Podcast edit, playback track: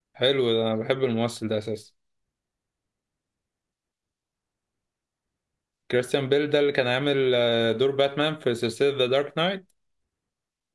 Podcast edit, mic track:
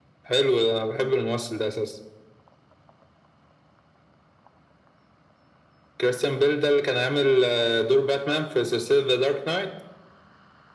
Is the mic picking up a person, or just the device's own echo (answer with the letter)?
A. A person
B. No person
B